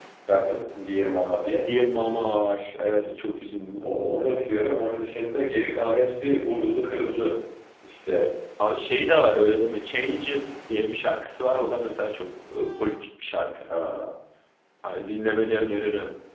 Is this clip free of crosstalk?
Yes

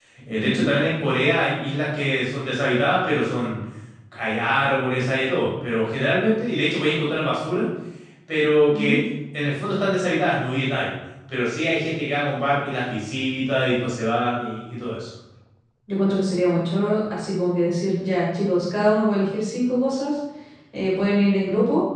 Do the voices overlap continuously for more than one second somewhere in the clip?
No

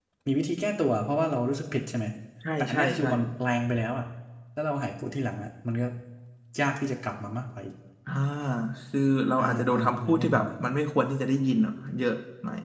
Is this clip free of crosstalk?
No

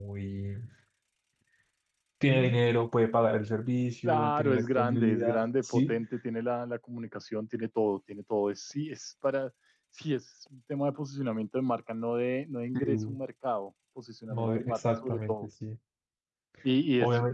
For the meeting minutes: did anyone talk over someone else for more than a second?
Yes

